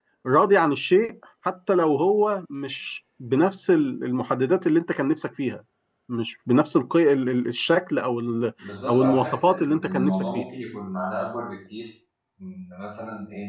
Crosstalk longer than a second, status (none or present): present